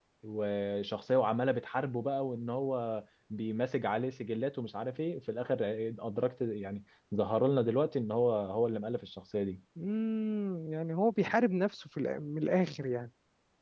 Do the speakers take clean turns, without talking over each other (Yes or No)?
Yes